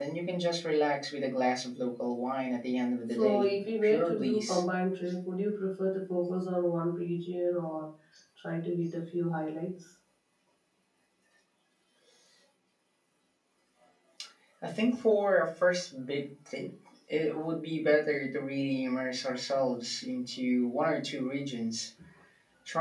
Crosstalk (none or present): present